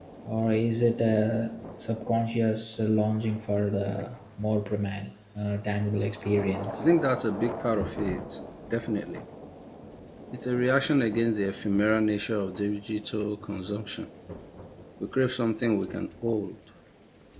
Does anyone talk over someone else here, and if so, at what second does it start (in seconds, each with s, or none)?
none